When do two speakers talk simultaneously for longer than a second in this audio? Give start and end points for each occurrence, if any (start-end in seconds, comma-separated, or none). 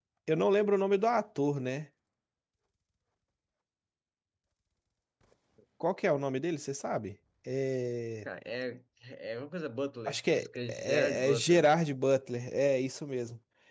10.1-11.6